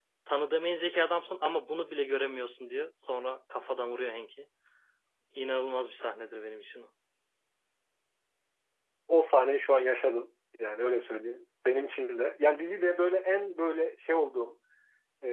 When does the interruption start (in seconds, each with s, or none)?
none